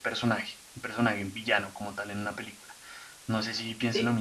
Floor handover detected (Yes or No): Yes